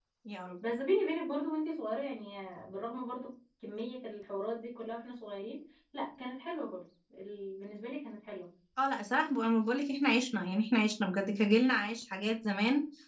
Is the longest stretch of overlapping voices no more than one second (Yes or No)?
Yes